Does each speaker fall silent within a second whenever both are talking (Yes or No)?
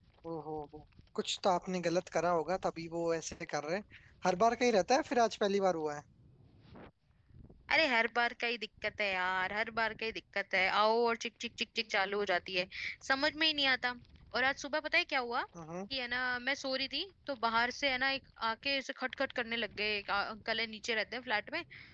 Yes